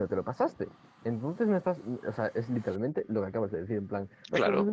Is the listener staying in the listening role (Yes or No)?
No